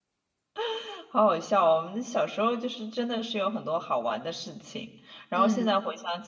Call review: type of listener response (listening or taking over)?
listening